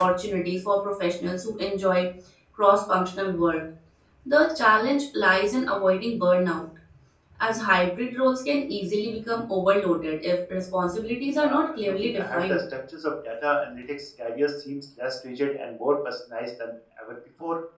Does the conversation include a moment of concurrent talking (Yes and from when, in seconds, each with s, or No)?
Yes, from 11.3 s